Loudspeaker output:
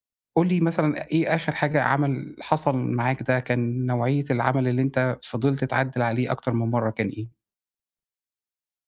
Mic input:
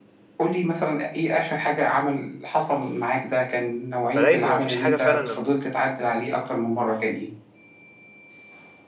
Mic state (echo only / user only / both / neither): both